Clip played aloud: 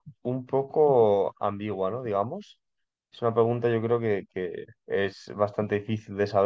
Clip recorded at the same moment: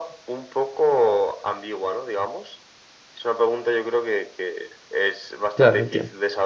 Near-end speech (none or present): present